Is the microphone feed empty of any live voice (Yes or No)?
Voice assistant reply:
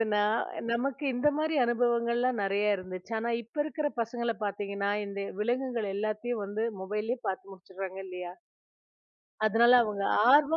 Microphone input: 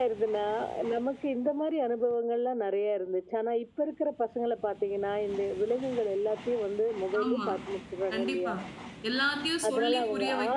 No